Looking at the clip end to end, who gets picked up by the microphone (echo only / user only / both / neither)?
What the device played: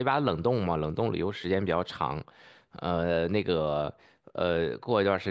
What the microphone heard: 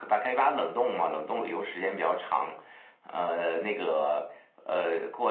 echo only